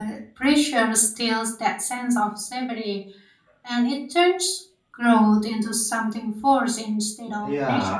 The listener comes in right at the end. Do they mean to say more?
Yes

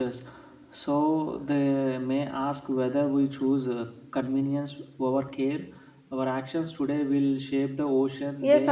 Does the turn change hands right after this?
Yes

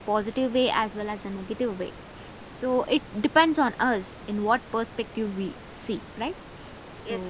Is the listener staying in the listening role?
No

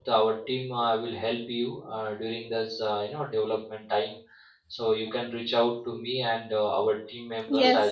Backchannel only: Yes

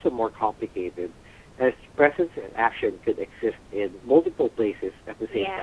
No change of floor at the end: No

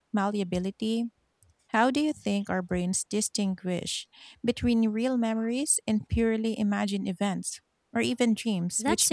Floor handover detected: Yes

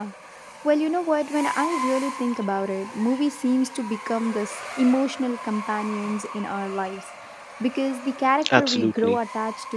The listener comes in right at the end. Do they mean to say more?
No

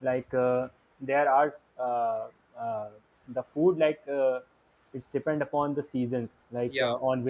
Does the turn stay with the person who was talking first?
Yes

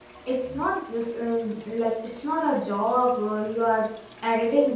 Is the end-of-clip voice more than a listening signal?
Yes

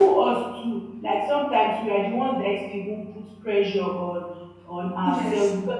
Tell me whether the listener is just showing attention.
Yes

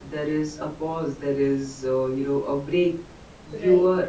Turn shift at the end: No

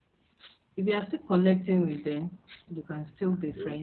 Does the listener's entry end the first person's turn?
No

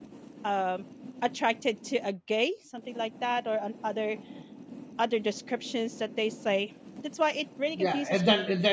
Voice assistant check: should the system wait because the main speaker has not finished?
No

